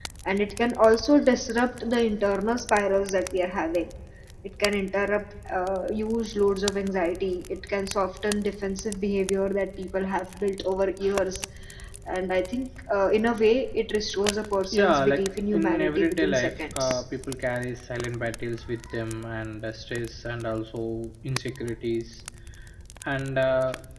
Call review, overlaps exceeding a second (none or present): present